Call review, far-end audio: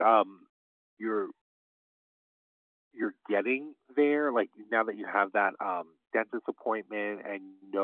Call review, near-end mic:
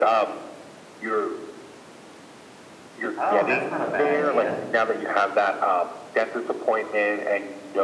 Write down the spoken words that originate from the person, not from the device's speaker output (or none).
Oh, that's not a bad idea.